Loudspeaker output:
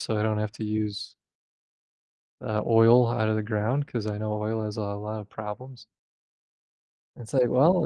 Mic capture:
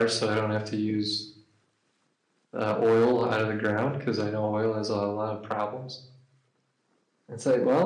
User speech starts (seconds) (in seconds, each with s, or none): none